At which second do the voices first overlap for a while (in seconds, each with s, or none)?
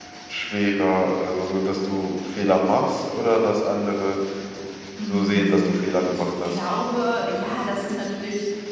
5.1 s